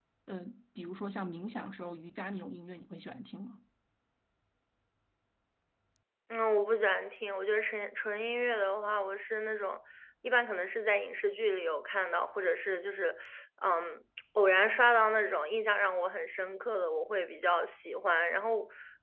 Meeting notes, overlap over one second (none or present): none